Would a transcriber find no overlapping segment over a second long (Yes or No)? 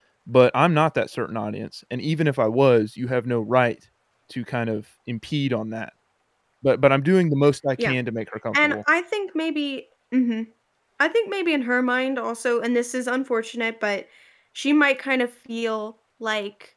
Yes